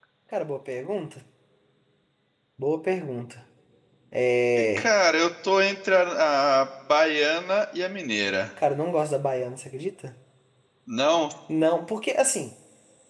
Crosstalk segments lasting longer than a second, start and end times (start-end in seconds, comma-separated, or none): none